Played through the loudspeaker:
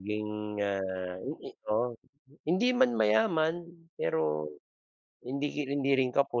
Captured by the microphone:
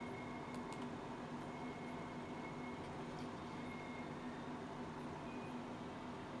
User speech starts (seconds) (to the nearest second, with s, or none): none